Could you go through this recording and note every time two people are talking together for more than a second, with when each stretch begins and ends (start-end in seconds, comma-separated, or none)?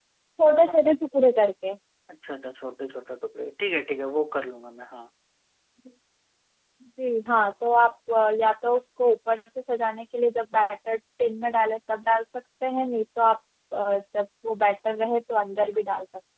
none